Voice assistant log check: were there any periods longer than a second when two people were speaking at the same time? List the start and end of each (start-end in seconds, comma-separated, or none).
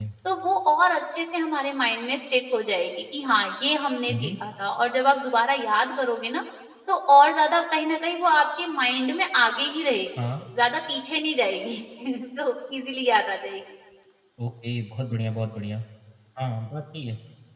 none